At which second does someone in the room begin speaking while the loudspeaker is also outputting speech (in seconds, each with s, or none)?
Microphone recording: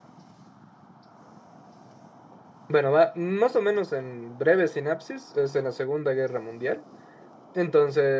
2.7 s